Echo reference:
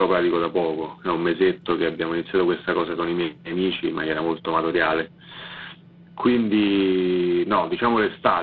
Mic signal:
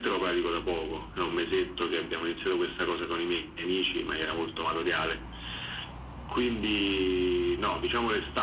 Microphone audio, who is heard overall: echo only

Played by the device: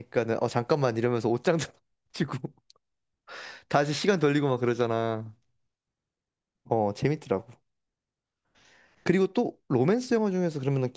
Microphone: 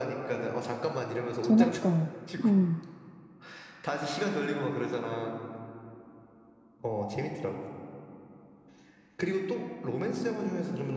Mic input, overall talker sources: both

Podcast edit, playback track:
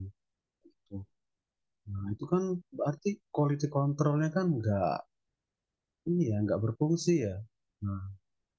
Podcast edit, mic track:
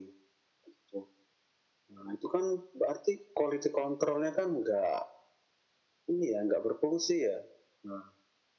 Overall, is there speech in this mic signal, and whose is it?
echo only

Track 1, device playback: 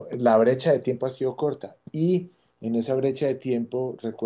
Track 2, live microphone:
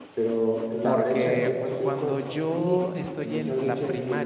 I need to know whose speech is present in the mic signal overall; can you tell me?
both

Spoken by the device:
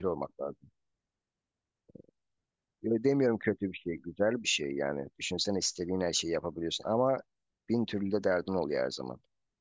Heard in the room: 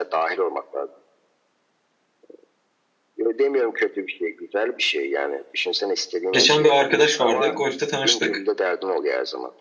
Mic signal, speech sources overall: both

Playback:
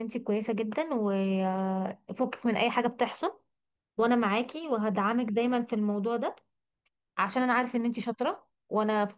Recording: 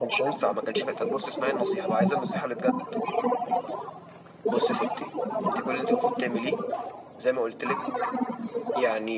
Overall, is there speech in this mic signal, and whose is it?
both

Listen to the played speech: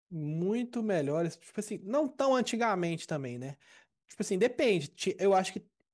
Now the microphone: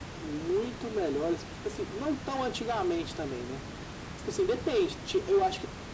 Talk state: echo only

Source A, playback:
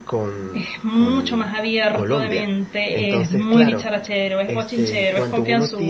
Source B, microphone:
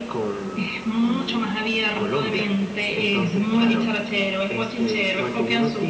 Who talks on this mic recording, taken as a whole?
echo only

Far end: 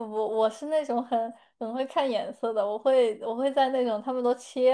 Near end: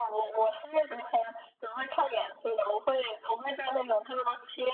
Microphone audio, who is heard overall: echo only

